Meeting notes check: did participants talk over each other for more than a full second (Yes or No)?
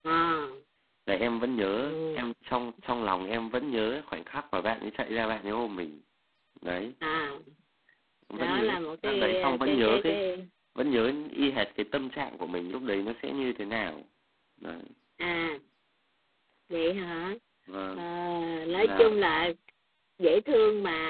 Yes